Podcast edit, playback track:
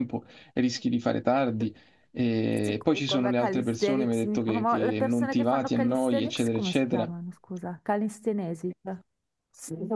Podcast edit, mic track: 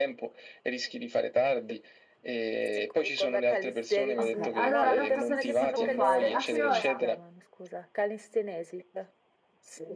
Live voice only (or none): Ok, allora data così si può fare. A che ora?